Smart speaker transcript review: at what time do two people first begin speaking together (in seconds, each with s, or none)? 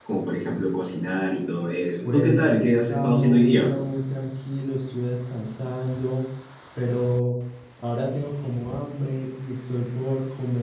2.0 s